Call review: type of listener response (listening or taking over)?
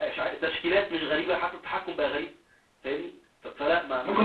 taking over